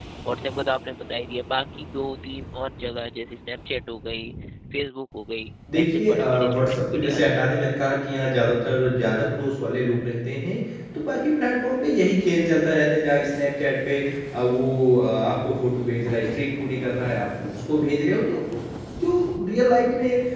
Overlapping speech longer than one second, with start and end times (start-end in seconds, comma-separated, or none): 5.8-7.3